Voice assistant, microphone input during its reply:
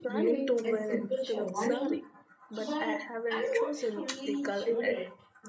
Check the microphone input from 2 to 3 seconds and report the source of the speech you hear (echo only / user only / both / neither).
both